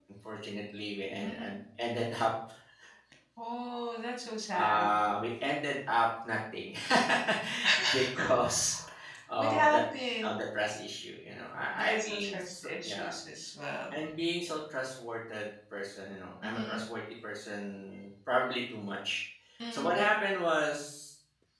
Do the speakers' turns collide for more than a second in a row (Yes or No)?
Yes